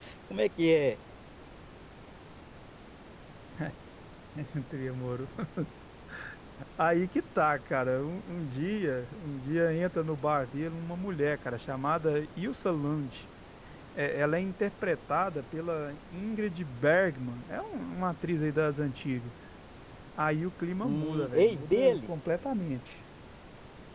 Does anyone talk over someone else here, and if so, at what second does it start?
21 s

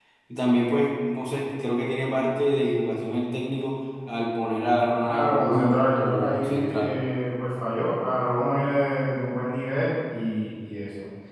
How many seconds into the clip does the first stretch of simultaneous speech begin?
5 s

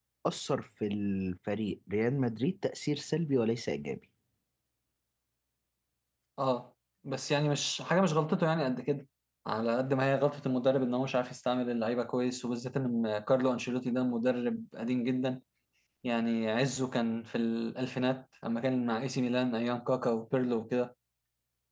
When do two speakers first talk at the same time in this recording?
none

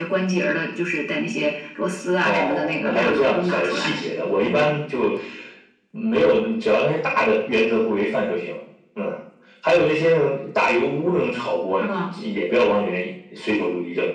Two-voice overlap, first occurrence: 2 s

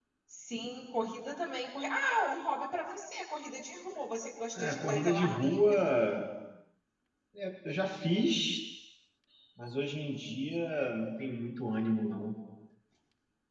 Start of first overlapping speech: 5 s

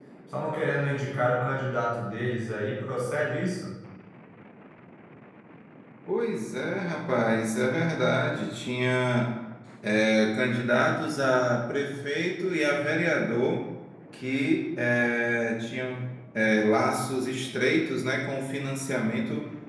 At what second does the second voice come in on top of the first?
none

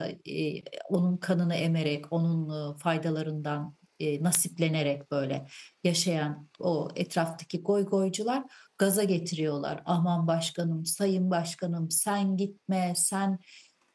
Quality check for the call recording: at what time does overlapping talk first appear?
none

